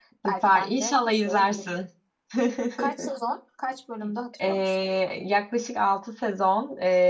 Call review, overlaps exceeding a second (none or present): present